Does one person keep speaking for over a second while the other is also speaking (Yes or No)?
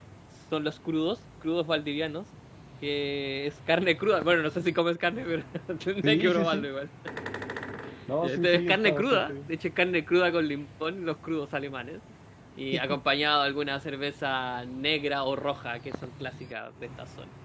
Yes